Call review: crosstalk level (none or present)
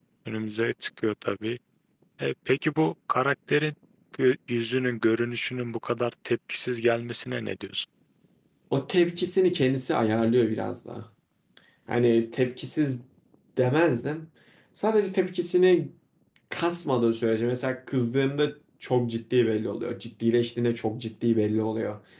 none